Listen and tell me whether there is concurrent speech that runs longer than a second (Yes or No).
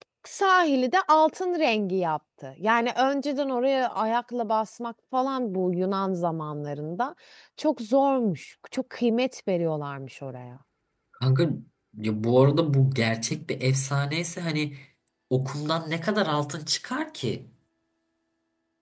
No